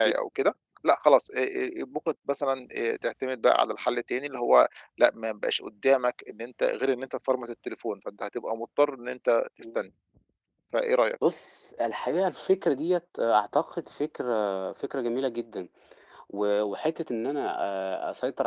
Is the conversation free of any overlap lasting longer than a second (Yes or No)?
Yes